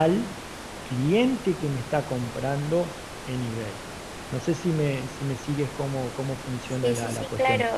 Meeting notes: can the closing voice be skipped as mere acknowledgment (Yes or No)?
No